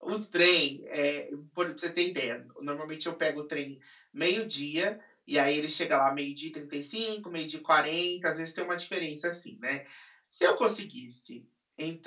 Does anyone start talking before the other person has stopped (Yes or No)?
No